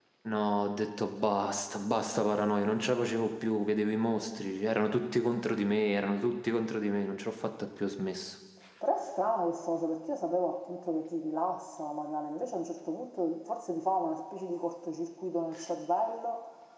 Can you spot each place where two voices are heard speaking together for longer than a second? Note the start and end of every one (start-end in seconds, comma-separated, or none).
none